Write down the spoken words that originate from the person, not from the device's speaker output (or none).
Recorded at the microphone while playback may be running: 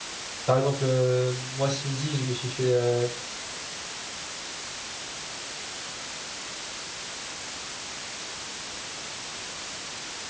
Par exemple, euh, moi ce midi, je me suis fait, euh,